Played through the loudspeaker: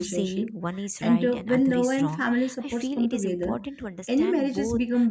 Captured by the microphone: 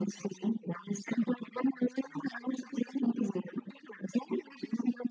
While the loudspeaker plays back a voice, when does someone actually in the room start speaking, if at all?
none

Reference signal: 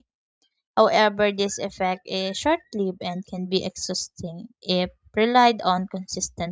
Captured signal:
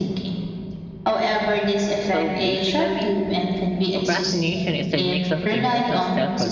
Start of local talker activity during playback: 2.0 s

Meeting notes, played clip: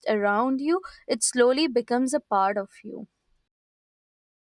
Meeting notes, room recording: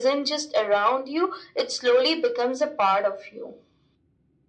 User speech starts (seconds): none

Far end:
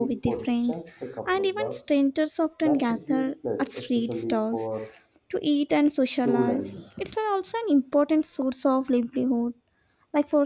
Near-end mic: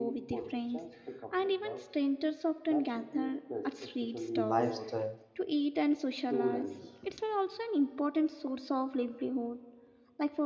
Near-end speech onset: 4.3 s

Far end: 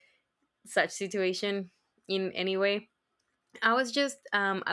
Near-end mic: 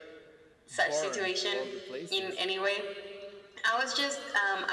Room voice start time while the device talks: 0.7 s

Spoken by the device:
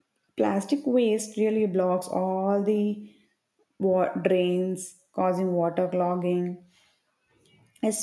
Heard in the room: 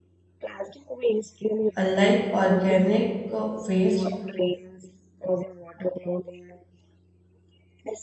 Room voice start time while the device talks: 1.8 s

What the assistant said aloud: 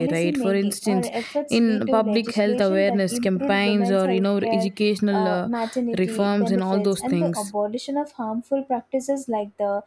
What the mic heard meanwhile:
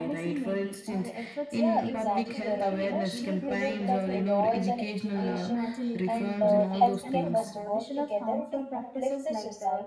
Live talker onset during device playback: 1.5 s

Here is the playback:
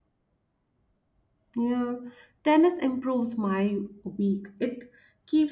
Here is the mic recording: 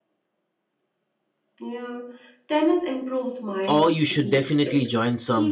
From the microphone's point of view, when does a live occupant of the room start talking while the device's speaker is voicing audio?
3.7 s

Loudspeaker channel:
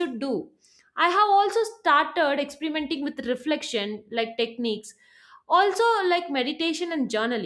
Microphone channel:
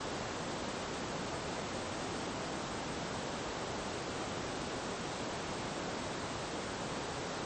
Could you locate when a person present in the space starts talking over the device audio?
none

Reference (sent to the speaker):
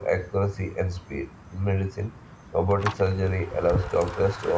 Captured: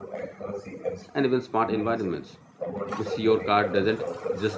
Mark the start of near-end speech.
1.1 s

